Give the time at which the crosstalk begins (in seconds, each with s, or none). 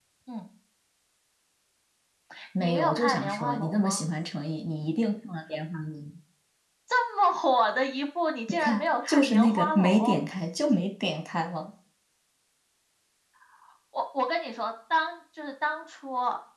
2.6 s